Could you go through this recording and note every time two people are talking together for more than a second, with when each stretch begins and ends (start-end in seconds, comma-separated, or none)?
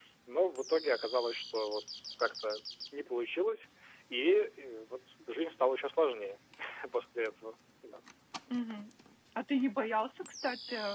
none